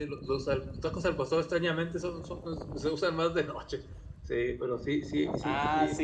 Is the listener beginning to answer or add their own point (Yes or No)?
Yes